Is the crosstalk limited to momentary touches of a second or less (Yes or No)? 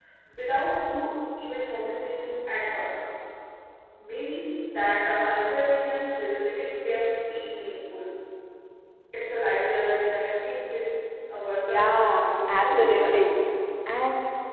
No